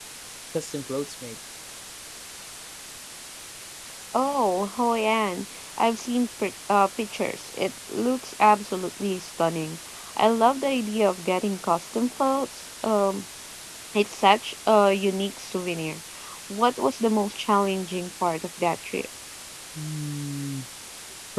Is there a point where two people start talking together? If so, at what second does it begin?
none

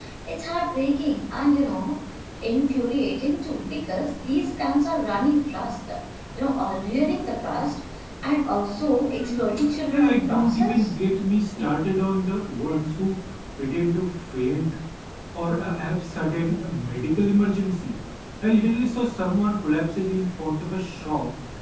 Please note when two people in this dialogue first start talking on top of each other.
9.0 s

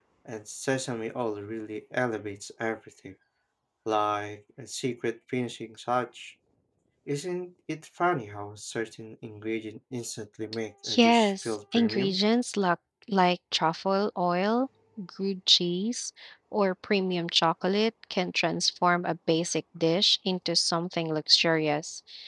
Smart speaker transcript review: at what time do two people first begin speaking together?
10.8 s

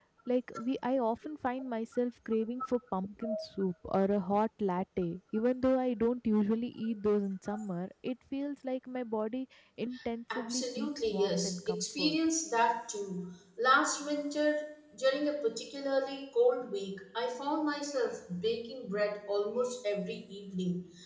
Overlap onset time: 10.3 s

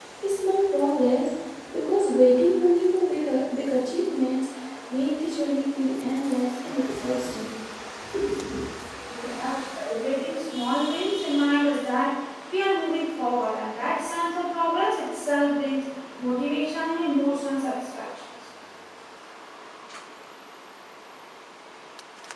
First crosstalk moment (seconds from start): none

